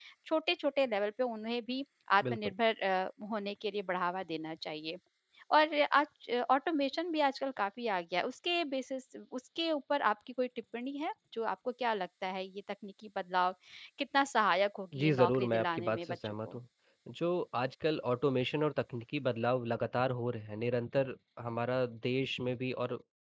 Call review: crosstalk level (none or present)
present